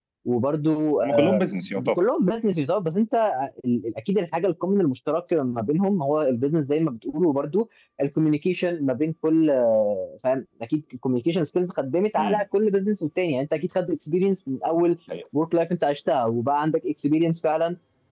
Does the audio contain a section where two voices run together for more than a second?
No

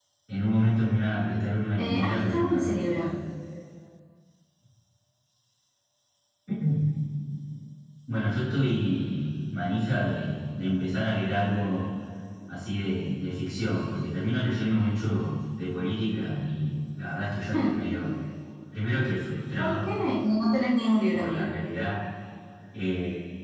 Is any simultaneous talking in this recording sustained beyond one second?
Yes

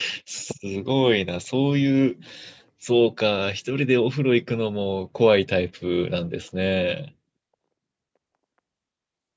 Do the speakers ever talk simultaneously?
No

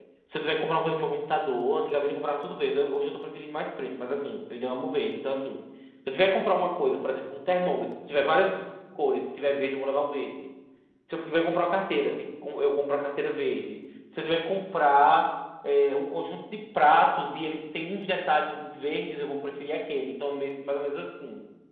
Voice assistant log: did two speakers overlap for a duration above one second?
No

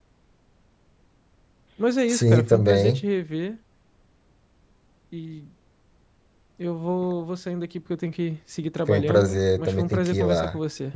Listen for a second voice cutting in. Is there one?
Yes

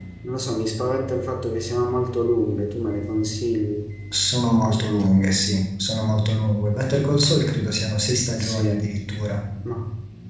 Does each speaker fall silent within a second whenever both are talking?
Yes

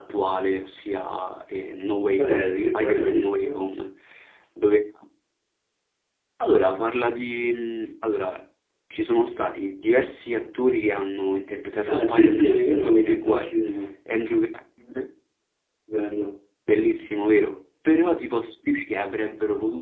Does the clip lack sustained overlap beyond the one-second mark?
No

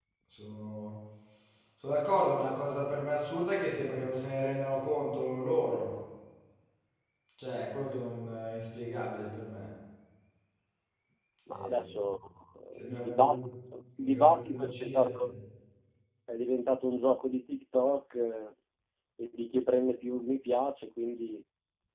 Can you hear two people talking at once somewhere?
Yes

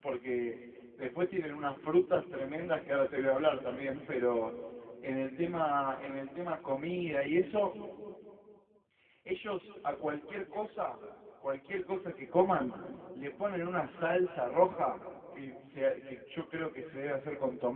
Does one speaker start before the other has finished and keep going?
No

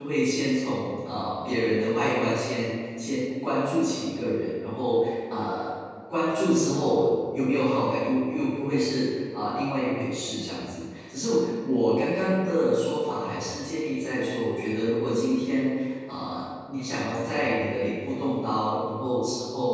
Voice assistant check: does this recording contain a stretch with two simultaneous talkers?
No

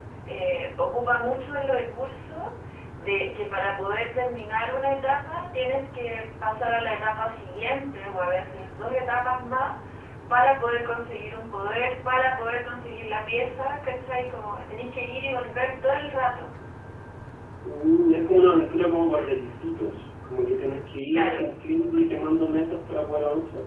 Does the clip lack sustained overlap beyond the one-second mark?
Yes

